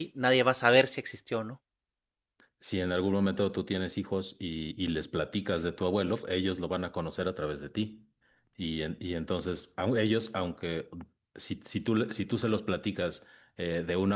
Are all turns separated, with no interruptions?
Yes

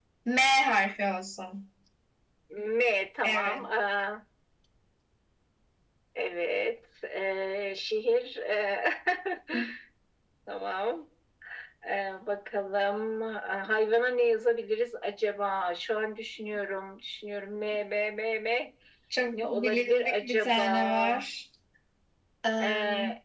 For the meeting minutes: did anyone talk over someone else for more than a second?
Yes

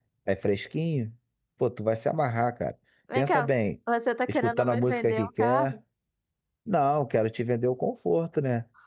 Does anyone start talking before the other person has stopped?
Yes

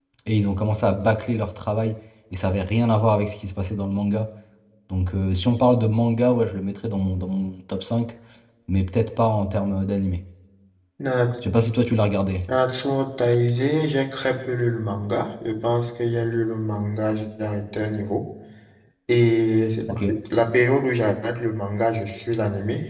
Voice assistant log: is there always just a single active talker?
Yes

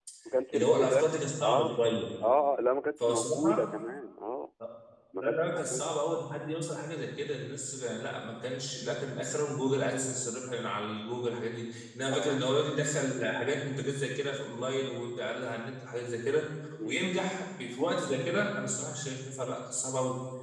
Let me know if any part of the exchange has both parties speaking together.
Yes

